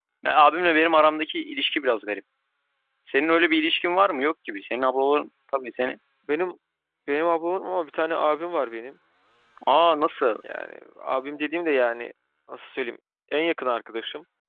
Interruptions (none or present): none